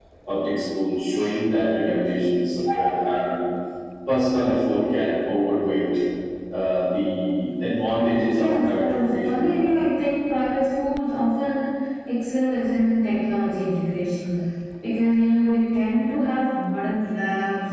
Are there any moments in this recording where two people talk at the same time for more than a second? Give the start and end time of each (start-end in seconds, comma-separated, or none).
8.3-9.7